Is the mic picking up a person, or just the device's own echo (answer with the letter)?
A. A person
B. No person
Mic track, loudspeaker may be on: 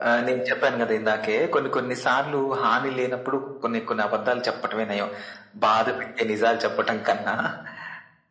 B